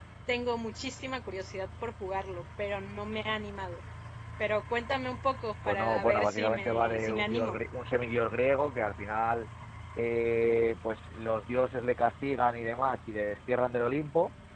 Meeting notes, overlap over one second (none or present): present